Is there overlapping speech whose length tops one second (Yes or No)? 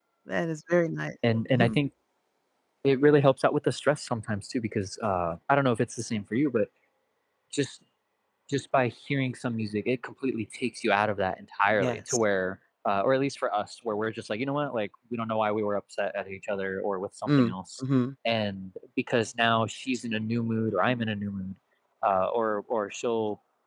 No